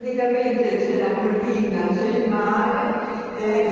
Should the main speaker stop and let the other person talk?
No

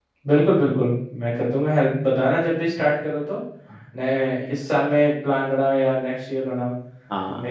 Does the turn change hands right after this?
Yes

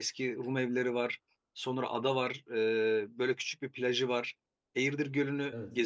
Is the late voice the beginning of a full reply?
No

